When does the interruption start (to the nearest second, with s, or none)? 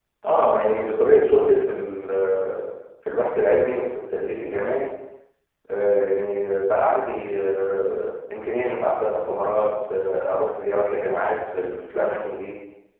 none